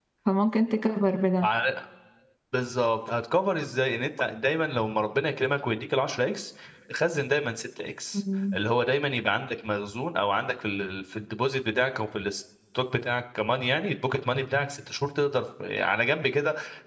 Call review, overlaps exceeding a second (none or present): none